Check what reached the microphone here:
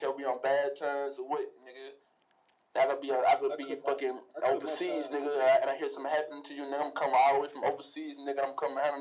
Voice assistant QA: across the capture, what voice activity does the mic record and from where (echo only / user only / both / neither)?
both